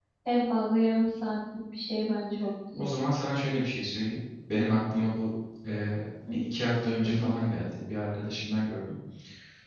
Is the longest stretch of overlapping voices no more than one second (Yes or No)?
Yes